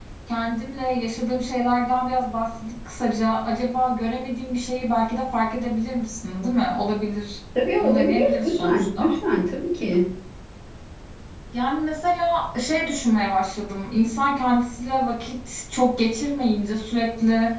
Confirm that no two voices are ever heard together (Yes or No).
No